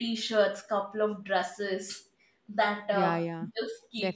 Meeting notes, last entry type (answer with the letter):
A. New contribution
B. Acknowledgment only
A